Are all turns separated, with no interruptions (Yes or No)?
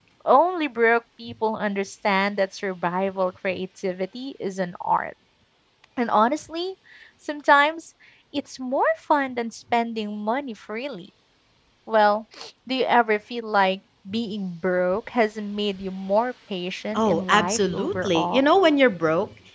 No